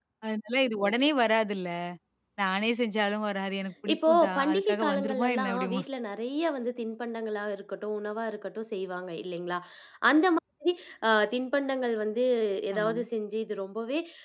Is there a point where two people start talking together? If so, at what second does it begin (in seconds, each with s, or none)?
3.9 s